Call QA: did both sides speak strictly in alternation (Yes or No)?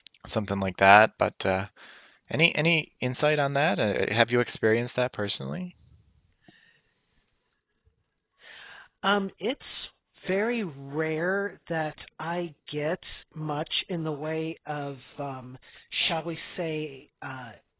Yes